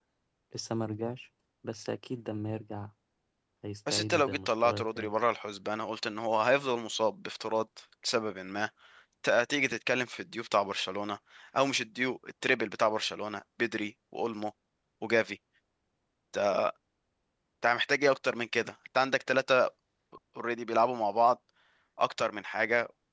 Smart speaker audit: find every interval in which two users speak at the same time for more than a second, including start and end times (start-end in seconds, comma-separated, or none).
3.9-5.1